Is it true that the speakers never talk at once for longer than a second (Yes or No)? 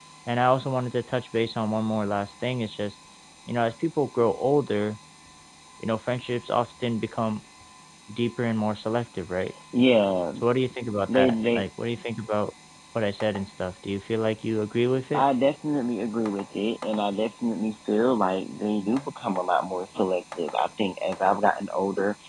Yes